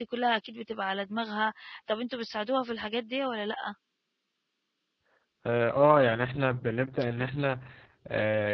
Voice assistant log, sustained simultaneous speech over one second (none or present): none